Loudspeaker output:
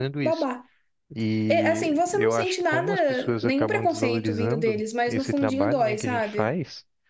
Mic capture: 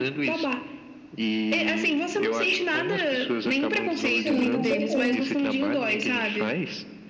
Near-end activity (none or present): present